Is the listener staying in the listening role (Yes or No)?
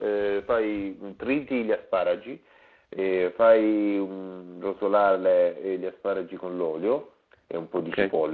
Yes